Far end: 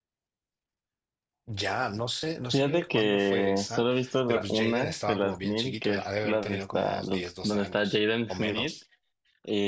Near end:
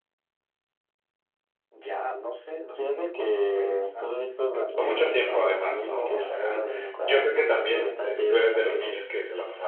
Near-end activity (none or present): present